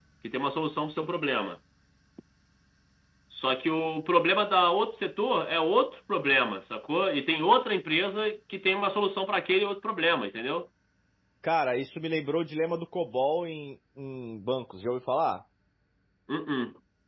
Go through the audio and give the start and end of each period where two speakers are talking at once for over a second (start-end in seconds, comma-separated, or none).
none